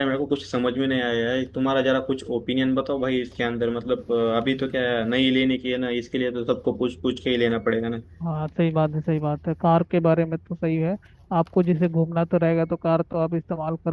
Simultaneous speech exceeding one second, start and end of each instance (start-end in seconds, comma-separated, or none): none